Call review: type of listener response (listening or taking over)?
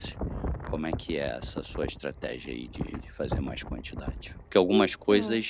listening